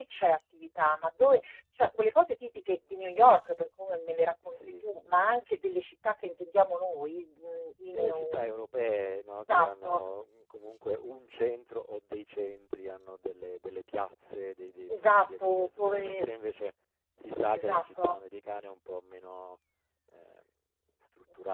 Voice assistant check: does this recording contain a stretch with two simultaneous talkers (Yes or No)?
Yes